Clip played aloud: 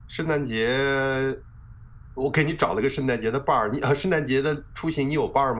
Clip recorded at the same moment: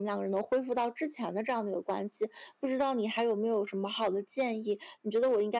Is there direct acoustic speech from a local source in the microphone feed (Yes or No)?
Yes